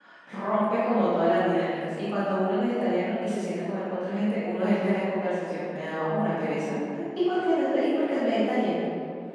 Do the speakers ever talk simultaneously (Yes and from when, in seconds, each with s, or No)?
No